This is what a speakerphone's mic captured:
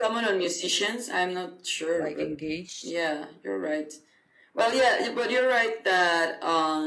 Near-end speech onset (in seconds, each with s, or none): 1.9 s